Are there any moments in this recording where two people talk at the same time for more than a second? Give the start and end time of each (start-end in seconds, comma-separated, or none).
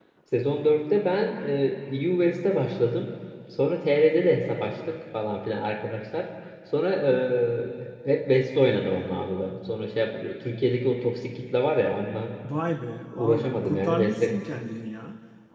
13.1-14.4